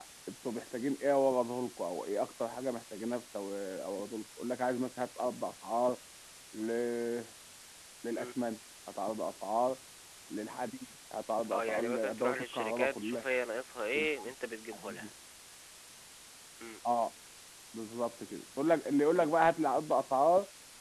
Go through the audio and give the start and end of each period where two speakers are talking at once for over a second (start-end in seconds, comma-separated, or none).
11.5-13.2